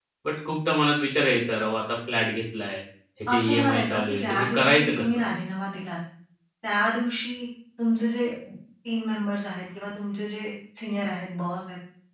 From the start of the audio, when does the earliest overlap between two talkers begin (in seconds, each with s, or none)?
3.3 s